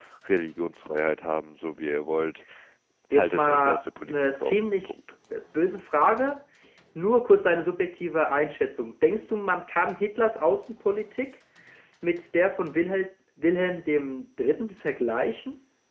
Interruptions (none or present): present